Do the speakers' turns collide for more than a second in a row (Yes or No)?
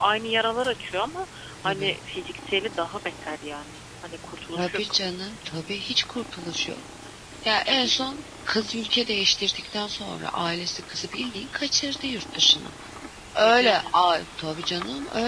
No